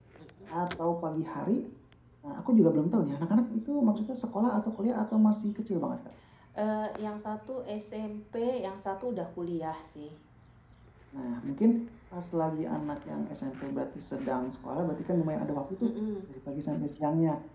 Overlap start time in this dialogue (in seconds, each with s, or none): none